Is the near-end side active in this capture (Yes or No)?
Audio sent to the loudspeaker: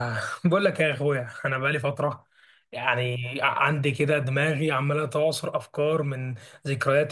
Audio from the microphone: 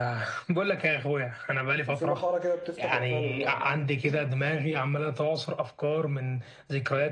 Yes